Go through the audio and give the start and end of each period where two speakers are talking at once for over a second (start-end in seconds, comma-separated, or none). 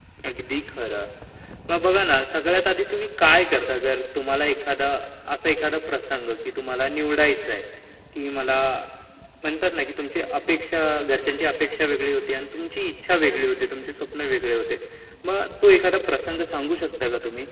none